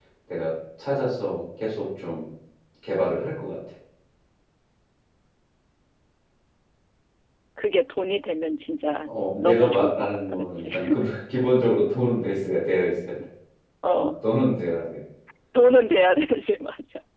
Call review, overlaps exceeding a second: present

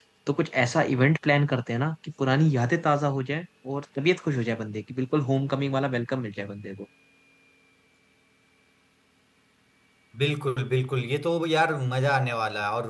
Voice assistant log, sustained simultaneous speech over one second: none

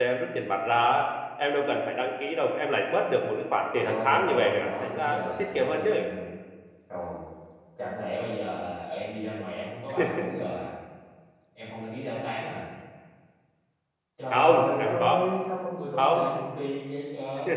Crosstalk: present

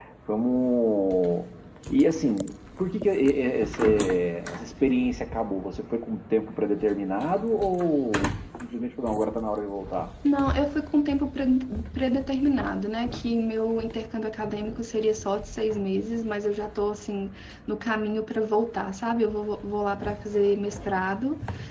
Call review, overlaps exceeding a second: none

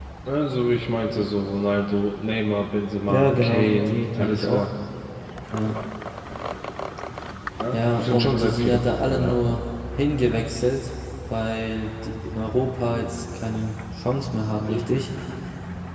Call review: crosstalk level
present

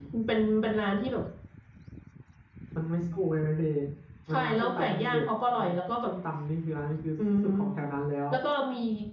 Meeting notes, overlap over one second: present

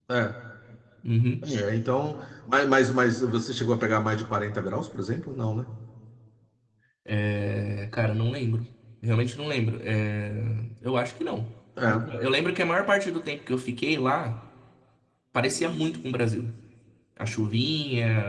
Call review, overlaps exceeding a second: none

